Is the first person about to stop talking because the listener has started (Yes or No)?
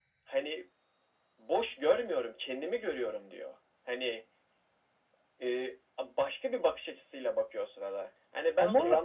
No